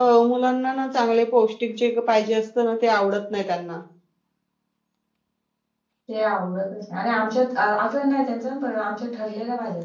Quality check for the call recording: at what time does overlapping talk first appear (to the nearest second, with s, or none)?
none